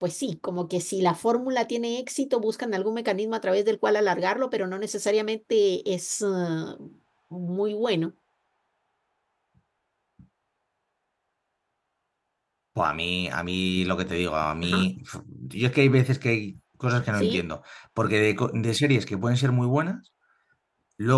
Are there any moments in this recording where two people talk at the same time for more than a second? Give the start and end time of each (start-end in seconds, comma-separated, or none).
none